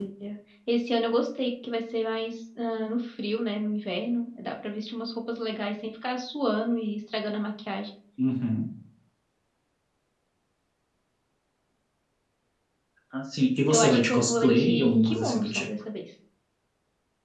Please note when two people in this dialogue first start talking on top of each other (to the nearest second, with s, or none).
14 s